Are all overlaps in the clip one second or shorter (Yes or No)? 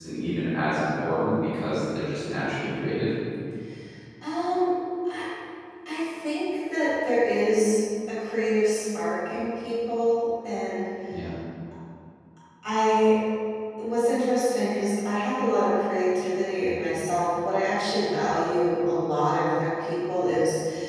Yes